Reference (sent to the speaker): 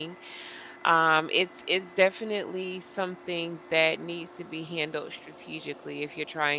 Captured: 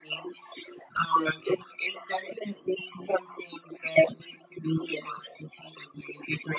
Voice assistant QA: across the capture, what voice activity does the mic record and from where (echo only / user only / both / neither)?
echo only